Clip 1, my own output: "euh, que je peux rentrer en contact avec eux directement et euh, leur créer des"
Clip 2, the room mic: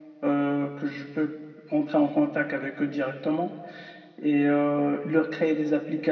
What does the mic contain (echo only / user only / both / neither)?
echo only